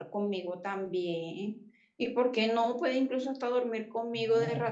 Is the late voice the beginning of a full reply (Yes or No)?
Yes